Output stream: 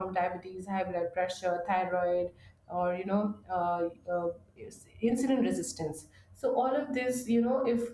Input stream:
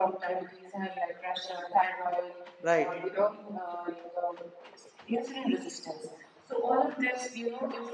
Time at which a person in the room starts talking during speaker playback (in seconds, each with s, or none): 2.6 s